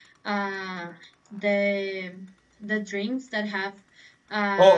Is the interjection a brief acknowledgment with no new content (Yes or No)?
No